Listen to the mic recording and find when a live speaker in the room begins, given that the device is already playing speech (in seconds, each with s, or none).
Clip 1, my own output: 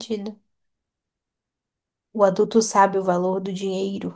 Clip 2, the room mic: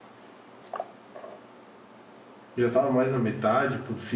2.5 s